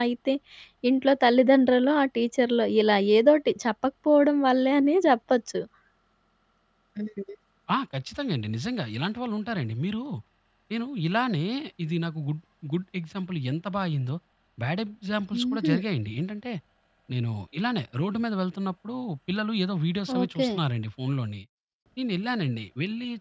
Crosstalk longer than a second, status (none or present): none